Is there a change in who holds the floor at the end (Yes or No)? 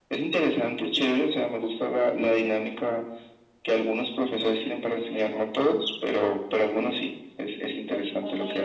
Yes